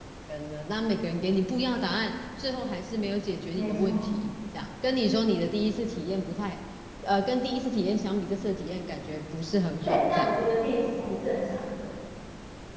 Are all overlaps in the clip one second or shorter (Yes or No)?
Yes